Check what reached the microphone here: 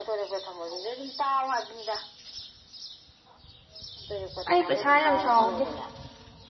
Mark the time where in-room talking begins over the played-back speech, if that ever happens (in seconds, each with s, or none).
4.5 s